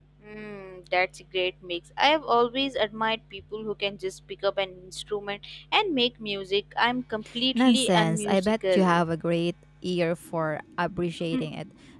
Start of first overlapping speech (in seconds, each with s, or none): 7.5 s